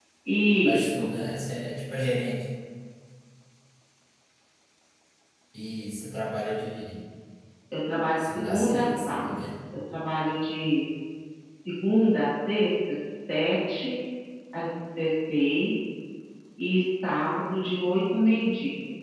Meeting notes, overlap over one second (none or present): present